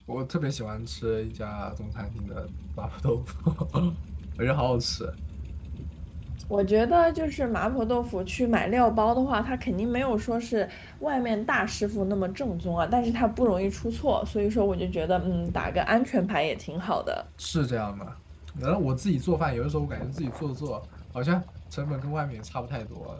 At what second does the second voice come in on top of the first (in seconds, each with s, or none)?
none